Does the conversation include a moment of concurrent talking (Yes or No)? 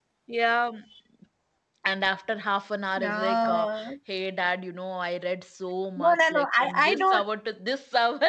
Yes